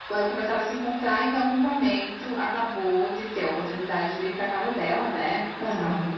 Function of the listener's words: listening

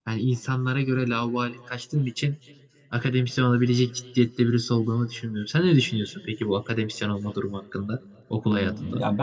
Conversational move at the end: taking over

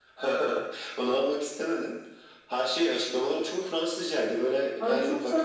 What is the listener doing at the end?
taking over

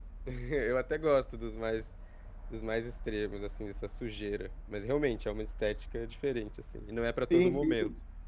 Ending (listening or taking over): taking over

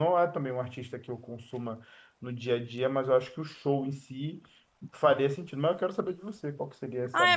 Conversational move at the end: taking over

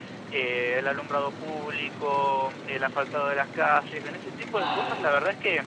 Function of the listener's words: listening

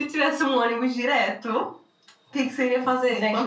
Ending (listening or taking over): taking over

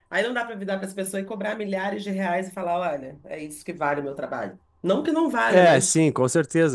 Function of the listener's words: taking over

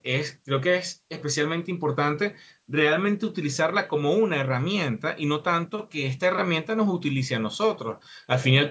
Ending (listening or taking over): listening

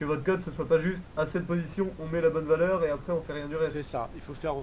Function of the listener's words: taking over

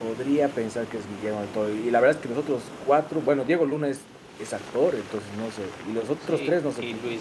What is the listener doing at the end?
taking over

